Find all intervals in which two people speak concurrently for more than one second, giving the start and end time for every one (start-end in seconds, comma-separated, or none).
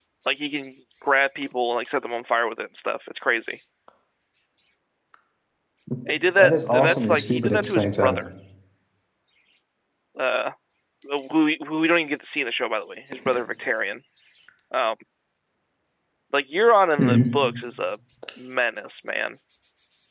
6.4-8.2